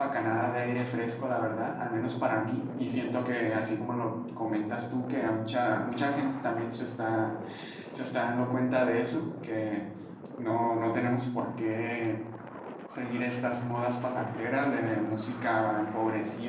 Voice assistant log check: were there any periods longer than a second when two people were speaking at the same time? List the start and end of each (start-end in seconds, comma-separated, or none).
none